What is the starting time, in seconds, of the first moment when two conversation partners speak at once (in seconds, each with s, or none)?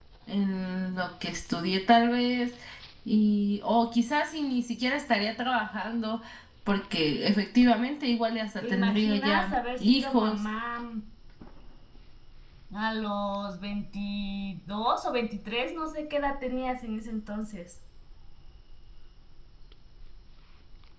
8.6 s